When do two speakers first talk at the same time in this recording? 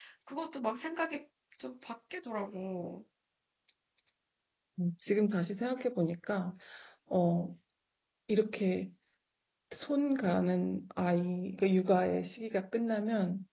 none

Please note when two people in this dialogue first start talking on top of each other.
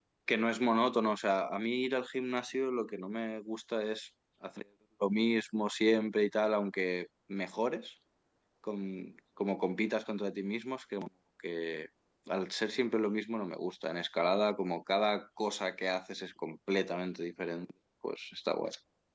none

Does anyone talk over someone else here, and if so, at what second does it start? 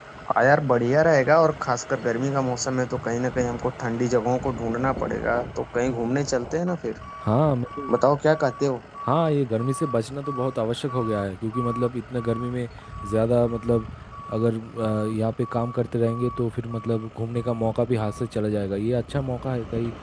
none

